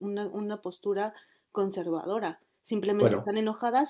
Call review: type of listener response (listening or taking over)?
listening